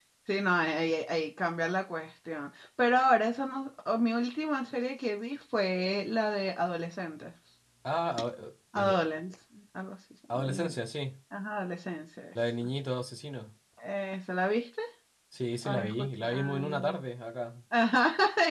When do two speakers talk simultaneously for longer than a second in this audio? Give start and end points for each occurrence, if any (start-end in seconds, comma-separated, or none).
15.7-17.0